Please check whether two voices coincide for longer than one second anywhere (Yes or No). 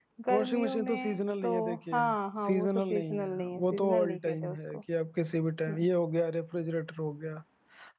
Yes